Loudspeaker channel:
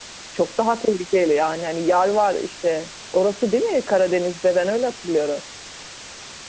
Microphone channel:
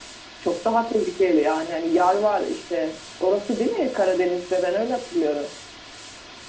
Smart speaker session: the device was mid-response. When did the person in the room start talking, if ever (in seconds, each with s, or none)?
none